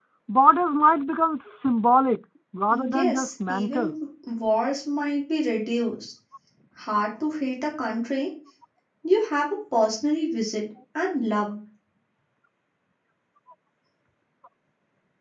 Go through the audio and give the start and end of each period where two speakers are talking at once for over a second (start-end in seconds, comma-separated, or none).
2.7-4.0